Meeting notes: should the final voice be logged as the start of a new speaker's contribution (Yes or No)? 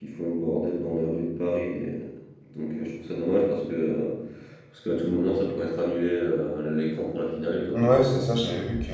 Yes